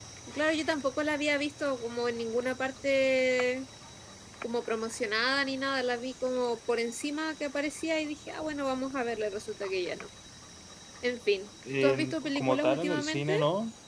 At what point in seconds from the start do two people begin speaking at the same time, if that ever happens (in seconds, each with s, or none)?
11.8 s